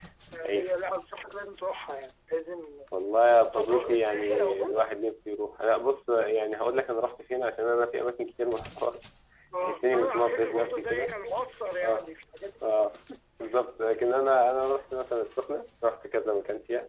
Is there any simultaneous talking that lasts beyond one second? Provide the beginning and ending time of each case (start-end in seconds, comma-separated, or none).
3.5-4.8, 9.6-11.1